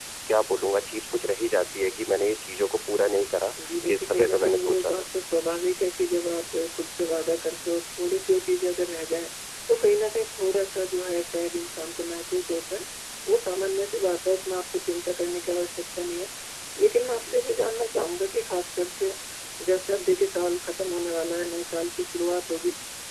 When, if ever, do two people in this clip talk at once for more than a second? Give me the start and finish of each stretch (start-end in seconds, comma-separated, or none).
3.8-5.0